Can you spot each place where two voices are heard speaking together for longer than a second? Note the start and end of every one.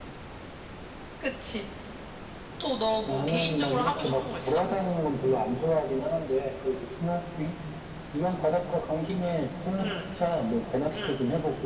3.0-4.6

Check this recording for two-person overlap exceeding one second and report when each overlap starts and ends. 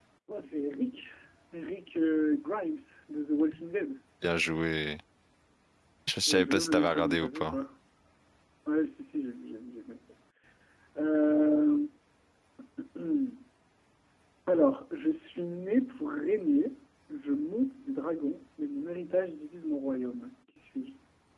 6.3-7.6

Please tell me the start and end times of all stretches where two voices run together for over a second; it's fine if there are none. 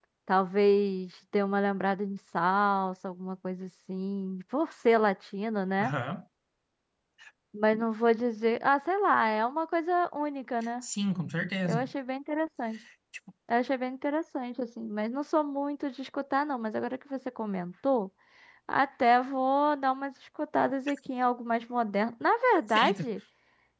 none

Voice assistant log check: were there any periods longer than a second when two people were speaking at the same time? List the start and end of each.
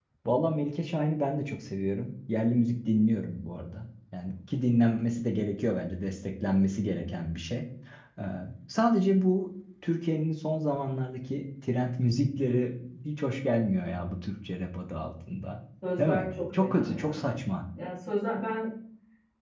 16.0-17.3

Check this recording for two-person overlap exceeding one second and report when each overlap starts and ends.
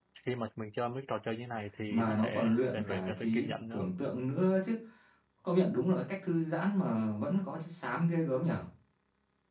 1.9-3.9

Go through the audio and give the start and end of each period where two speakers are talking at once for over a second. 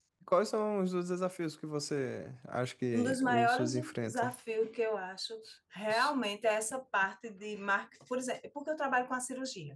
2.9-4.3

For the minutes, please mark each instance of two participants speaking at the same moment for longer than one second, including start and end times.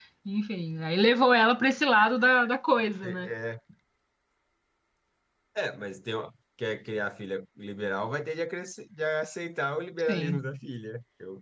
none

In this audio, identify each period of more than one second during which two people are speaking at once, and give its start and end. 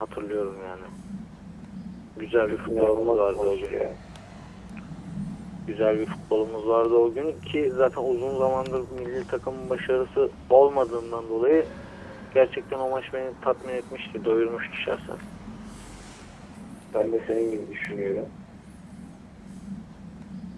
2.5-3.8

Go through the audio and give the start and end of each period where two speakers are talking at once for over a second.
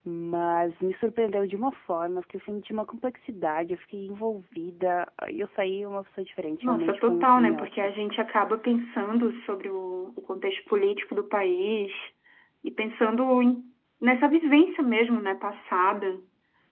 6.6-7.9

